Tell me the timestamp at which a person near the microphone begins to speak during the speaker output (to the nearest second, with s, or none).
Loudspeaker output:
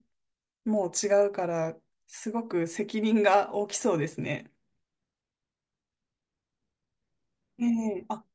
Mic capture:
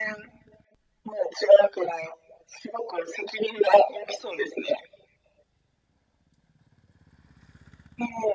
none